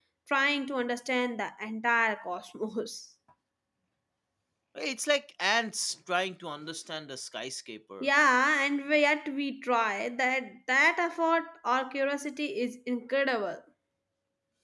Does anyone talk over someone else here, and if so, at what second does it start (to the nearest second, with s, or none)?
none